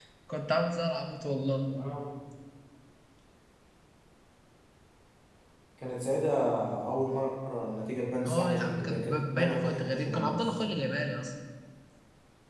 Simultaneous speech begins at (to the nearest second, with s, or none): 8 s